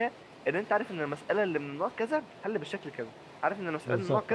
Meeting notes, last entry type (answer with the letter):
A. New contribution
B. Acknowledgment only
B